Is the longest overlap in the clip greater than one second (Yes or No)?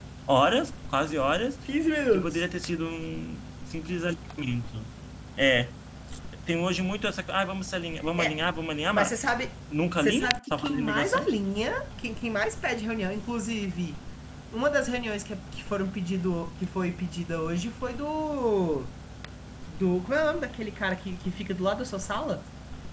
Yes